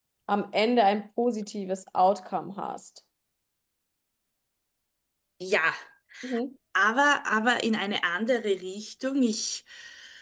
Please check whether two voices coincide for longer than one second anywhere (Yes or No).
No